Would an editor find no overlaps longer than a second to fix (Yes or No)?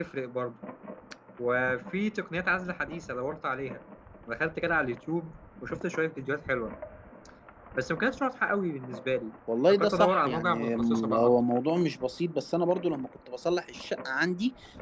No